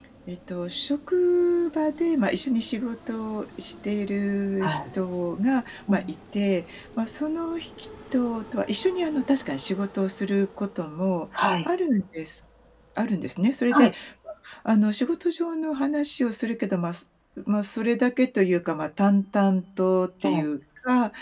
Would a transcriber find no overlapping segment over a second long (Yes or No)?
Yes